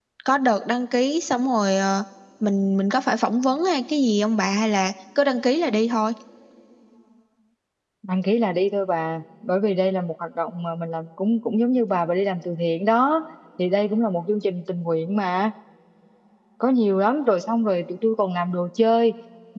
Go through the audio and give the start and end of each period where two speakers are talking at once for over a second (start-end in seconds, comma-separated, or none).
none